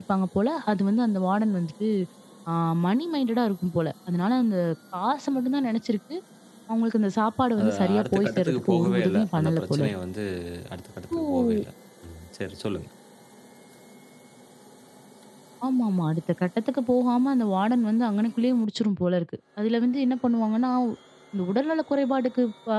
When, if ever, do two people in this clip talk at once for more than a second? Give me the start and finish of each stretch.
7.6-9.9

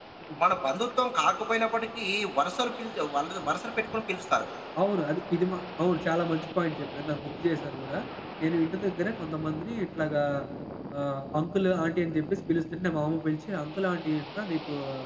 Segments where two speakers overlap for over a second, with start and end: none

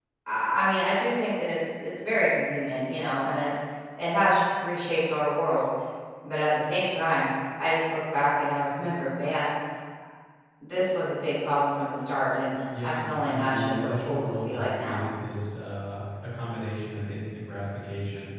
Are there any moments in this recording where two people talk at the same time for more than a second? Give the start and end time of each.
12.8-15.0

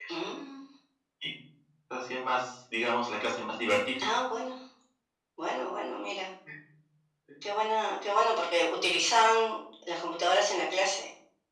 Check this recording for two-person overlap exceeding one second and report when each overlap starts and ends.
none

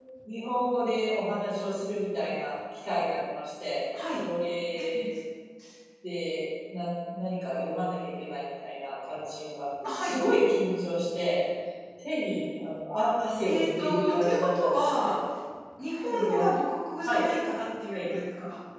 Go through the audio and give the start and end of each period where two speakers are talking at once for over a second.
13.5-15.1

